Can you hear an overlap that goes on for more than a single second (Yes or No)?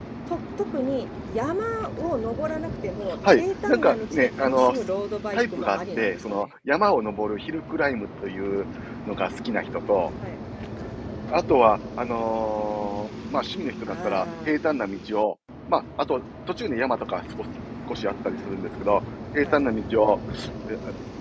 Yes